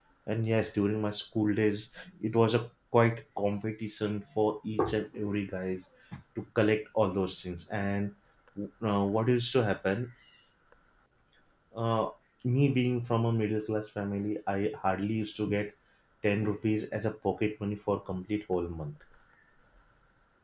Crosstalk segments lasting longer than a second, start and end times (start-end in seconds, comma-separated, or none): none